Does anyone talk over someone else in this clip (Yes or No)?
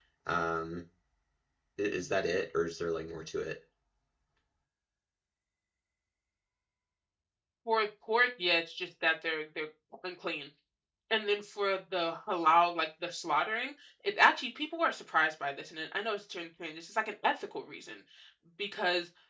No